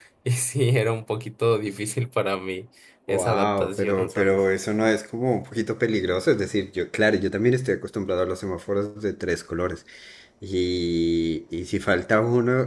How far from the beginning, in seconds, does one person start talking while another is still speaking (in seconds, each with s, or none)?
3.1 s